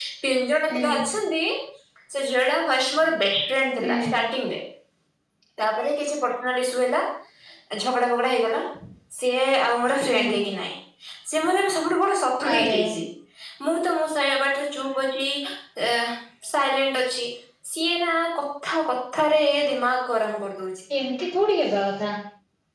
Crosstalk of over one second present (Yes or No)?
No